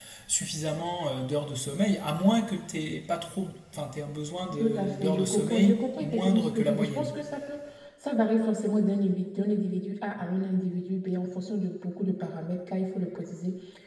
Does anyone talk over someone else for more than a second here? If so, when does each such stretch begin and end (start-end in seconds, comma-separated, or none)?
4.6-7.1